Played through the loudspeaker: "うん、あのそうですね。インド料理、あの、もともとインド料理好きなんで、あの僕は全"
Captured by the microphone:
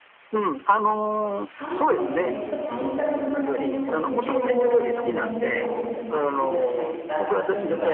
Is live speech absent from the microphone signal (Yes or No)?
No